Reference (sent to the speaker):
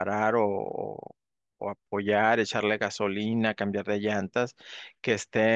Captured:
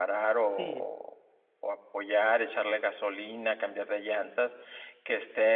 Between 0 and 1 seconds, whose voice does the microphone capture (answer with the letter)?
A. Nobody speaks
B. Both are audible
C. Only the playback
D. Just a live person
B